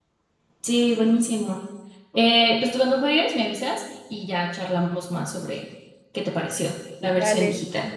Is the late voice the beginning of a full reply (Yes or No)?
Yes